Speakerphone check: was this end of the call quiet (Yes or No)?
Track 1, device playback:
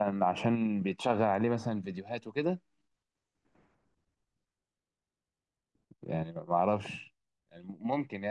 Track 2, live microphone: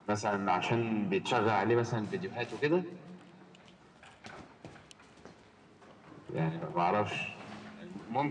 Yes